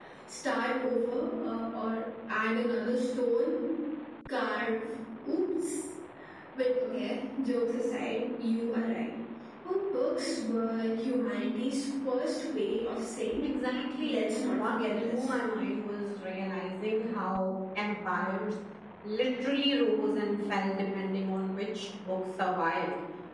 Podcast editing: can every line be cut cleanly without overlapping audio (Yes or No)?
No